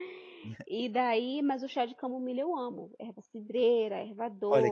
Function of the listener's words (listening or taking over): taking over